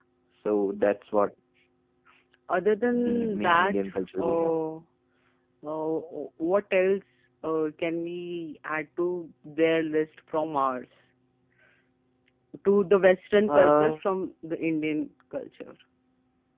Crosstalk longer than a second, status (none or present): present